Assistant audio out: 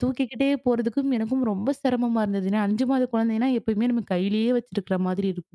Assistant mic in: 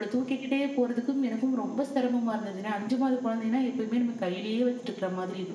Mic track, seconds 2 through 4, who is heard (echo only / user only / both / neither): echo only